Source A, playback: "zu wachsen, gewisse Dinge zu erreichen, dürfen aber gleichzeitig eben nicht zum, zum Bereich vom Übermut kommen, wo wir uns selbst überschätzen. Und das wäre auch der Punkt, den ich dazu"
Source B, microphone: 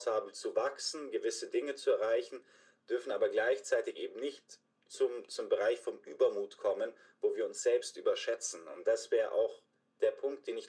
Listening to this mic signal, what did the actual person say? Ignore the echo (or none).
none